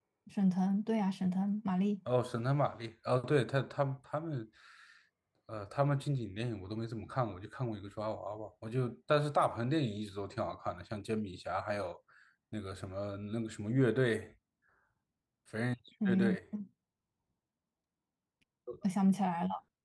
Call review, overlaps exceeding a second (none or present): none